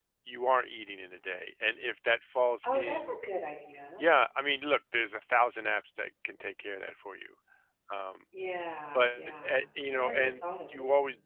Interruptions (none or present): present